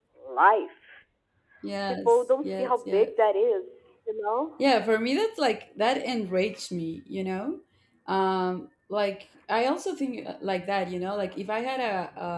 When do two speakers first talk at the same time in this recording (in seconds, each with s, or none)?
1.9 s